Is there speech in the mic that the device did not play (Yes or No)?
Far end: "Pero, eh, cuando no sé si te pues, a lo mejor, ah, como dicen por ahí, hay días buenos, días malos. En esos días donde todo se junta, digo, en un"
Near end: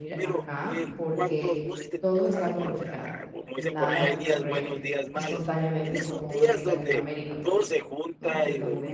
Yes